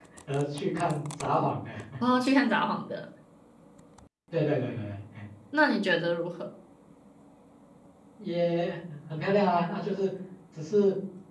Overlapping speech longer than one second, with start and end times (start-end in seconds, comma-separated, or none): none